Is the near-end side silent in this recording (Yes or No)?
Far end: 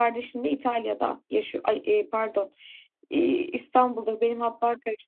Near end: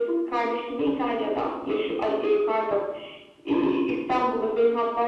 Yes